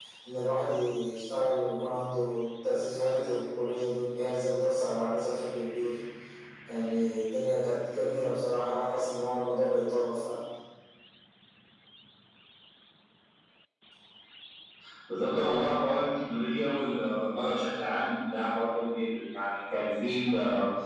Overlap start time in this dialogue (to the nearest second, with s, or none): none